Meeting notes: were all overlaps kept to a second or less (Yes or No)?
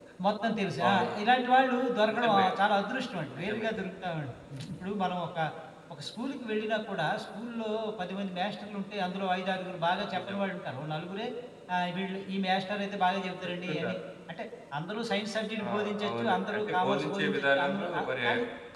No